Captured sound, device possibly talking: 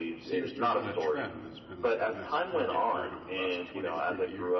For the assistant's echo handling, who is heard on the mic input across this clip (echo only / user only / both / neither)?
both